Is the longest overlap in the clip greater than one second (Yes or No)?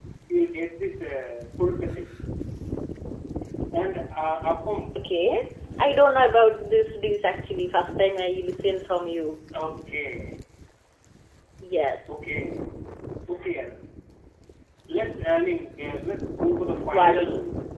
No